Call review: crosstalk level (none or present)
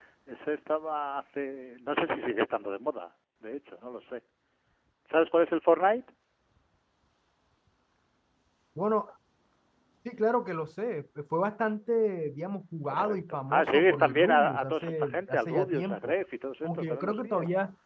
present